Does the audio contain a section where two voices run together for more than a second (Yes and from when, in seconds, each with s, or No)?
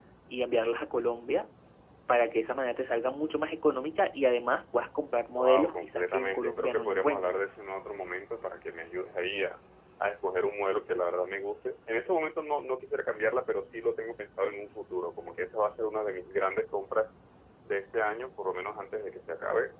Yes, from 5.3 s